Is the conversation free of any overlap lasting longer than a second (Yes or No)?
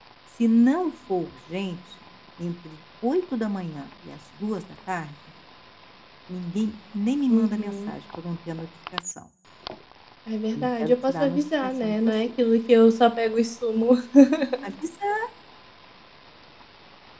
No